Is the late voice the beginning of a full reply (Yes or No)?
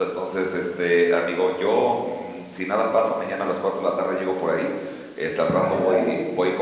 No